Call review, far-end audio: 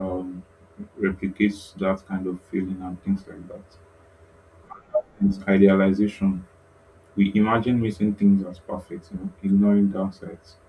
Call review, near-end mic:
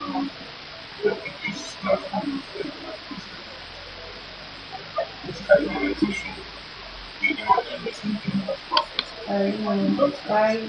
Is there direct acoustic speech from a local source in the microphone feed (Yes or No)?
Yes